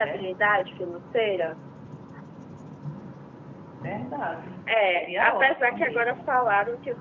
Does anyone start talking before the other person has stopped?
Yes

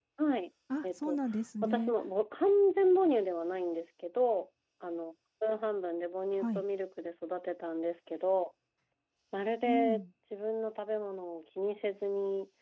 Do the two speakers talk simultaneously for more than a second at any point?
No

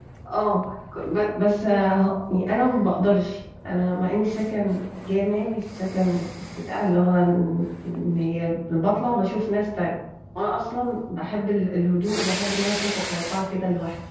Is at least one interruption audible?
No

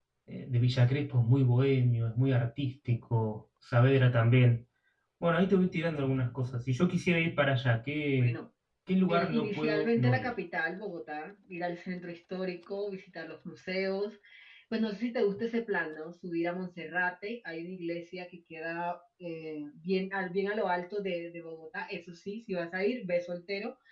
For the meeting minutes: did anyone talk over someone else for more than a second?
Yes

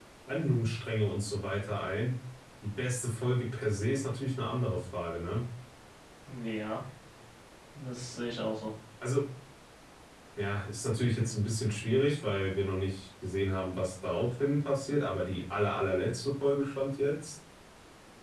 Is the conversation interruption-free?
Yes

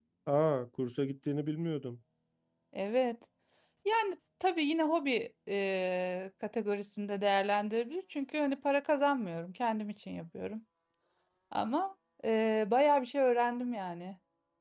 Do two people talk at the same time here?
No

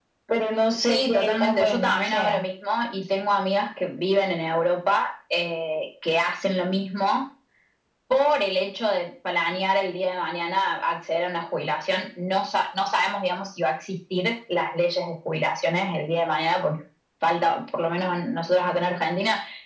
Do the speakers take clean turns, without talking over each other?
No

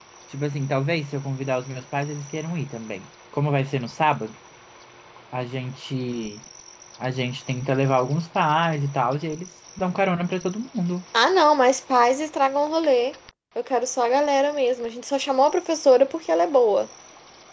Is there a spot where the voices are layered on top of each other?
No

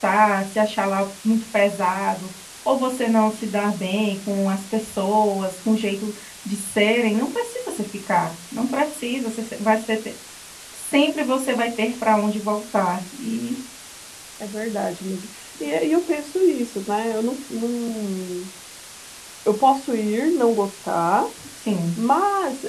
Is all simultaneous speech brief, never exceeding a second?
Yes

